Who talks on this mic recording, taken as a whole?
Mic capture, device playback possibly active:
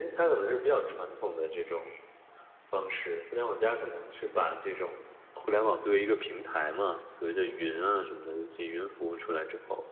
echo only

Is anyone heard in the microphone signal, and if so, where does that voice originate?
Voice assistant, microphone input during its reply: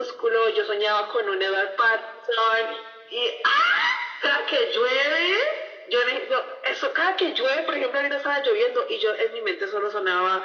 echo only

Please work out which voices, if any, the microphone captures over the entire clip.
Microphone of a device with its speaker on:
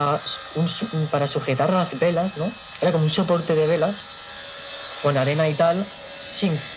echo only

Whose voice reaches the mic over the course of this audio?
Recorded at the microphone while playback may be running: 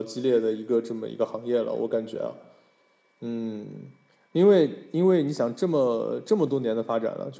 echo only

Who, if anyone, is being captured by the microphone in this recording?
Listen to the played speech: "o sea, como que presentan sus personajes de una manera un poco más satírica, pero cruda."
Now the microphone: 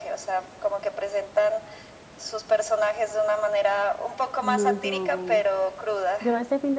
both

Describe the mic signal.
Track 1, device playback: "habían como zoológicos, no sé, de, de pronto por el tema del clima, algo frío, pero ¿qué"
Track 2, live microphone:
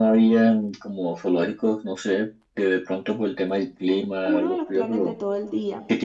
both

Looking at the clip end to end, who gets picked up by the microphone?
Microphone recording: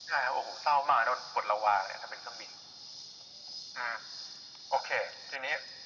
echo only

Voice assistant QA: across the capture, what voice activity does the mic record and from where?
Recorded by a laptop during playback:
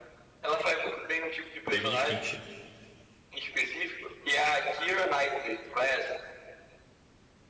both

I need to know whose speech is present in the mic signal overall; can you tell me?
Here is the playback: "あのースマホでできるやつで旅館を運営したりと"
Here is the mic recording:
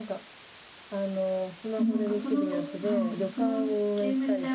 both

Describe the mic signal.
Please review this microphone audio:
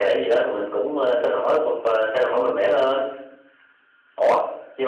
echo only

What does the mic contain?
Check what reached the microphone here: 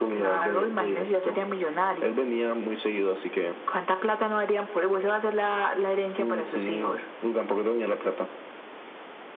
echo only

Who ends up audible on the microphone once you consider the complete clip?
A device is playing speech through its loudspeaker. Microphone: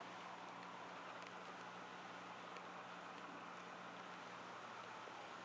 neither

